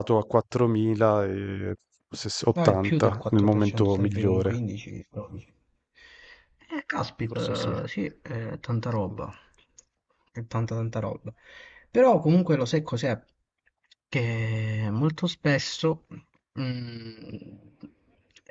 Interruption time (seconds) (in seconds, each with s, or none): 2.6 s